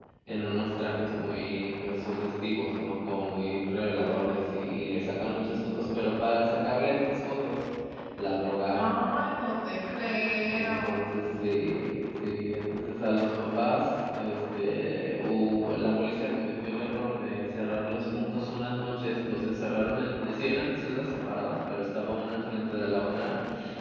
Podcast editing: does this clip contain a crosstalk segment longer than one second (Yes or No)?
No